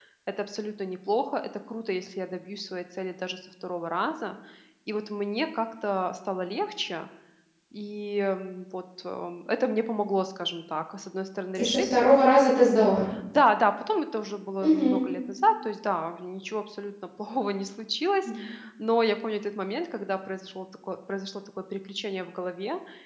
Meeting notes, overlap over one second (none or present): none